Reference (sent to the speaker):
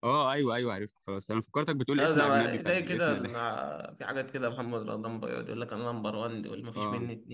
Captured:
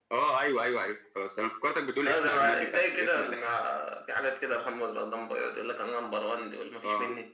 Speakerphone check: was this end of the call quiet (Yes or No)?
Yes